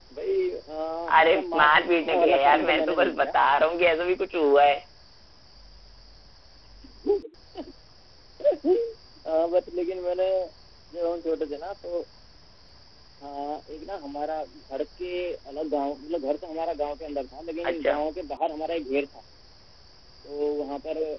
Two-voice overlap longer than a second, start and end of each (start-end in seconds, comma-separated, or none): 1.2-3.4